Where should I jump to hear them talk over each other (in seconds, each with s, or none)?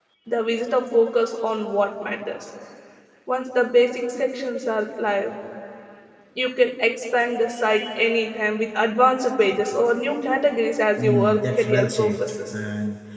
11.0 s